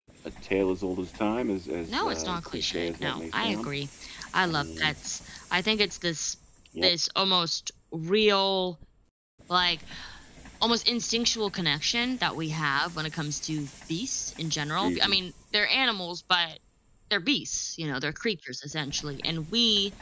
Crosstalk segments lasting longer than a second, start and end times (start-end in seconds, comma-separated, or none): 1.9-3.7